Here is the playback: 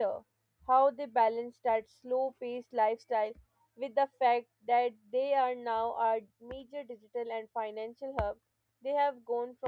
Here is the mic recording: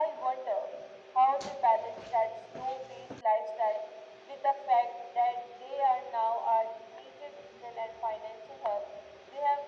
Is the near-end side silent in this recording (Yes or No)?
Yes